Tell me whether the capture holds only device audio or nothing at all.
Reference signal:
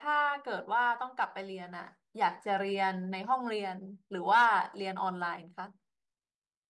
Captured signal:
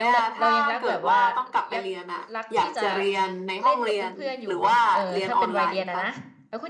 No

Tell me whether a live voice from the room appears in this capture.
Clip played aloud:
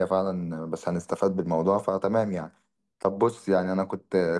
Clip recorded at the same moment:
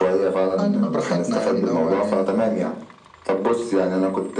Yes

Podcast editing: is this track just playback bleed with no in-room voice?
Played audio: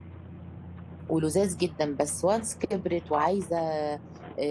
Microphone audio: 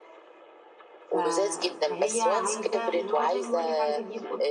No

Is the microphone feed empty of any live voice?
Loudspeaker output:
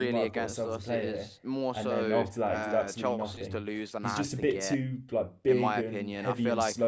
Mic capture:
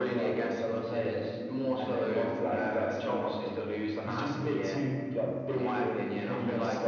Yes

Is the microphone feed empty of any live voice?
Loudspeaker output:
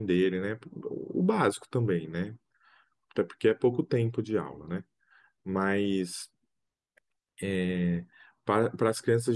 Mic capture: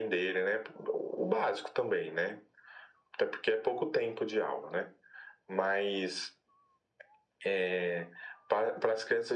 Yes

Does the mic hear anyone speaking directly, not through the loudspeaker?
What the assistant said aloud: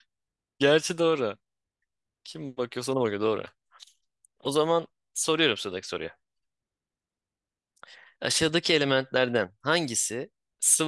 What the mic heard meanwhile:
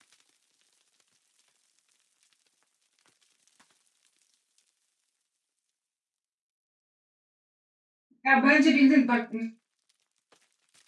Yes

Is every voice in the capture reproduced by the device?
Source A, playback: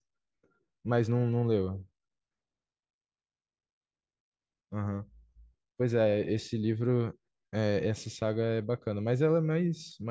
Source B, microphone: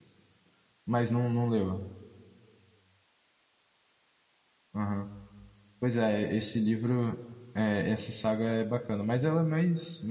Yes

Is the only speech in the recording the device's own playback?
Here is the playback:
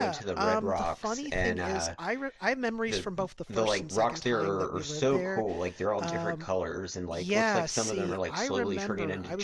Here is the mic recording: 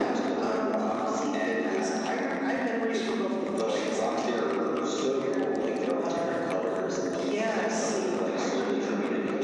Yes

